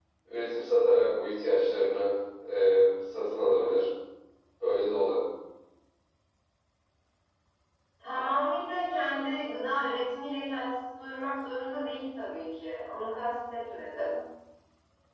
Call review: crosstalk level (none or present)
none